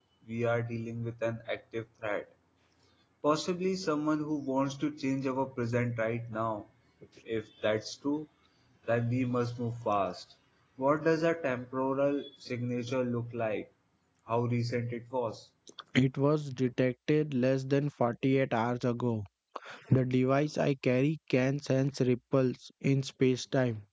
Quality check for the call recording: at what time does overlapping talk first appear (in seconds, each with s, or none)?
none